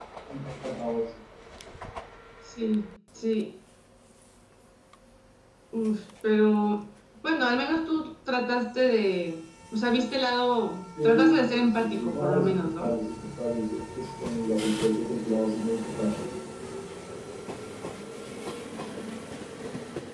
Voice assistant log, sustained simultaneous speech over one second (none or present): present